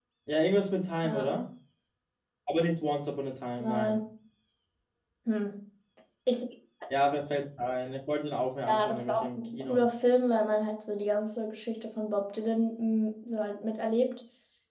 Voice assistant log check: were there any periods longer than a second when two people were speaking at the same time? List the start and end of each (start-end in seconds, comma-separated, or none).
8.7-9.9